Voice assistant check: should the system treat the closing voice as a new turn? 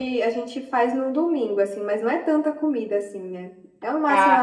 No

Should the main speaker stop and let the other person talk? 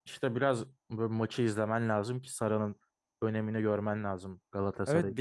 Yes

